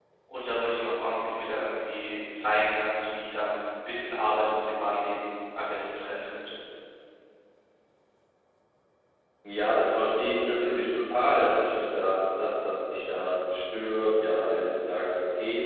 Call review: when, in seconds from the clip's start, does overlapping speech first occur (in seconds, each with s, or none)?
none